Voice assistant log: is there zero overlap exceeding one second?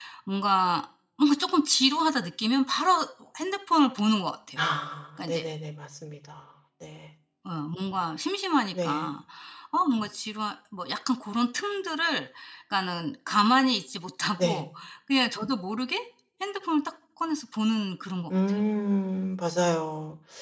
Yes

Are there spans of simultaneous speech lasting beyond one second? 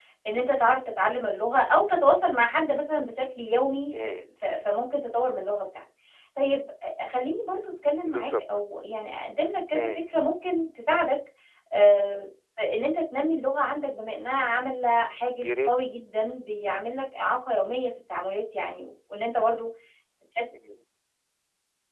No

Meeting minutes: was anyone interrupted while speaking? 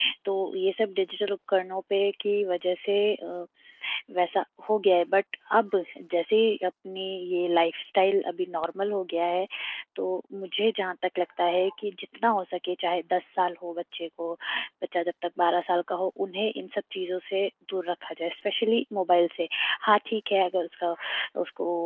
No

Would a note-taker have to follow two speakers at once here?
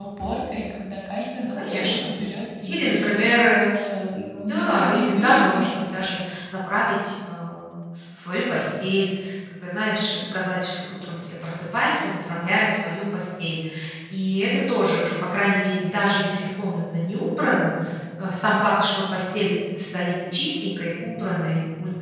Yes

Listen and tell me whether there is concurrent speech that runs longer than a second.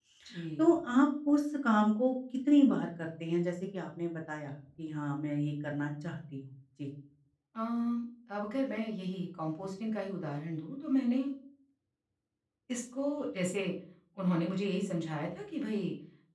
No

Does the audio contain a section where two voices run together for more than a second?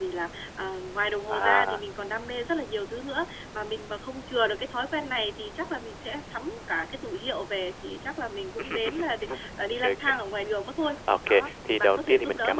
Yes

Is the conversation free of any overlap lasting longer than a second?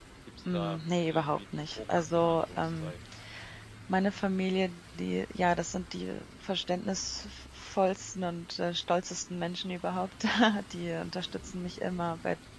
No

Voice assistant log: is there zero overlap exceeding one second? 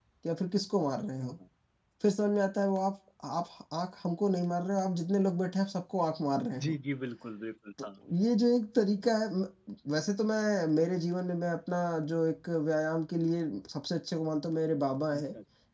Yes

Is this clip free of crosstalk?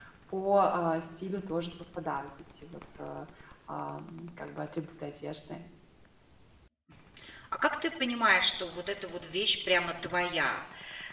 Yes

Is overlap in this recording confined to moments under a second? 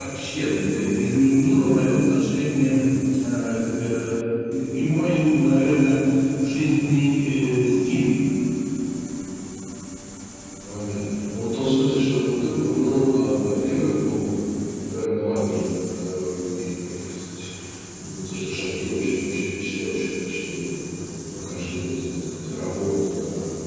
Yes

